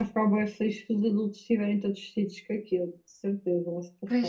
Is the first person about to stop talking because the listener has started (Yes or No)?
Yes